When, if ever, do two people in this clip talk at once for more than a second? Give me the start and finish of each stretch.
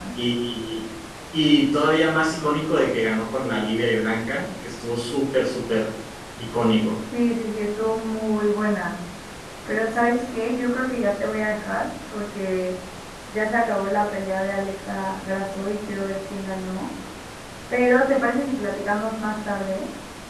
none

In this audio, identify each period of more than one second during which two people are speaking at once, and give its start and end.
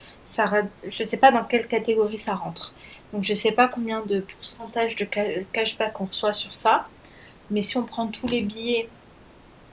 none

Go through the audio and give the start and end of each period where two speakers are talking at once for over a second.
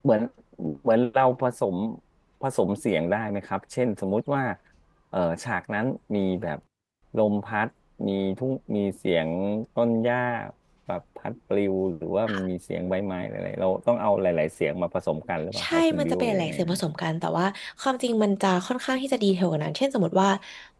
15.6-16.8

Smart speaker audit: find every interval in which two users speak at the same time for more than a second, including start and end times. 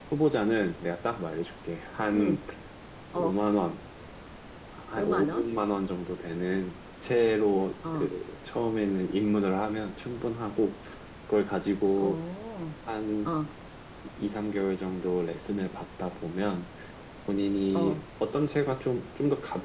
none

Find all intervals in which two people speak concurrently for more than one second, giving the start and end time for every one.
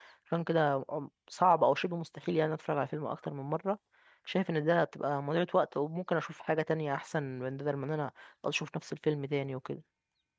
none

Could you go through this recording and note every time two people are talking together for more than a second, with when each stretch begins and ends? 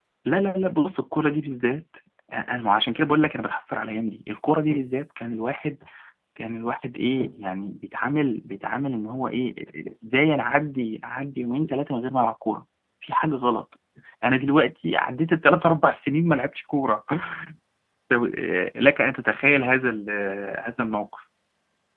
none

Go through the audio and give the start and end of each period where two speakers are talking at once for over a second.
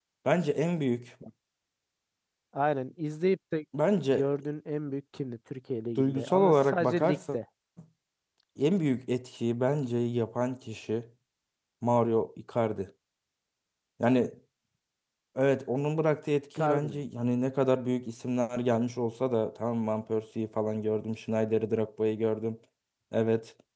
6.0-7.4

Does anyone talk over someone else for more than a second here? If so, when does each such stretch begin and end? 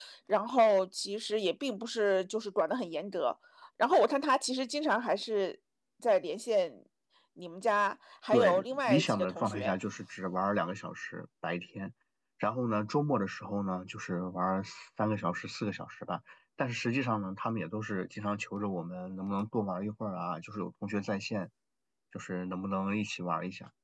8.3-9.7

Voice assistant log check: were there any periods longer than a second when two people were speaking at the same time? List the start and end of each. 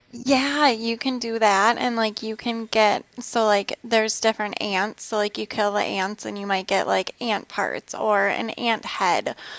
none

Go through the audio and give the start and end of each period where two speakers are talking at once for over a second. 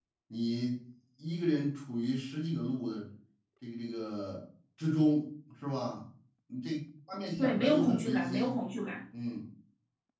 7.4-8.6

